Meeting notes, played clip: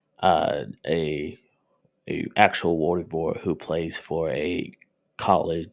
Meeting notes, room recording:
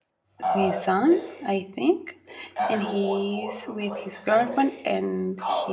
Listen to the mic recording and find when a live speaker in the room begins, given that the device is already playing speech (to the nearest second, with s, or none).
0 s